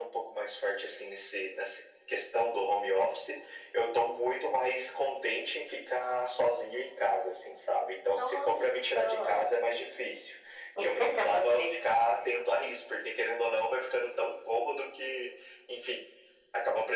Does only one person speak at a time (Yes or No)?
No